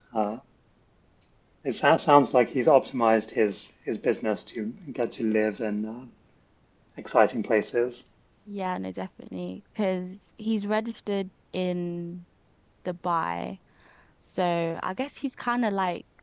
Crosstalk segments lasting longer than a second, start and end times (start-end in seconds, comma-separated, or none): none